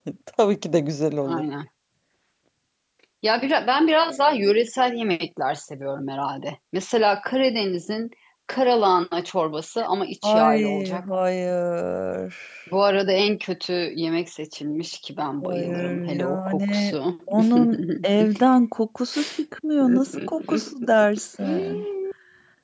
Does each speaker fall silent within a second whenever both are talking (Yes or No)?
No